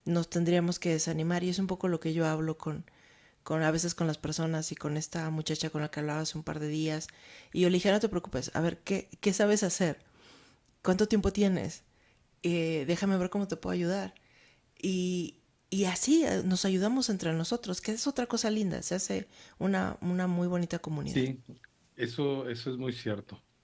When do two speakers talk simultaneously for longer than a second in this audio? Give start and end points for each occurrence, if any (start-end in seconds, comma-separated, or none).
none